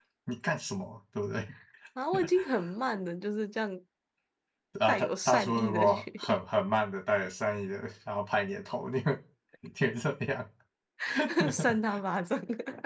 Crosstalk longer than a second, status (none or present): present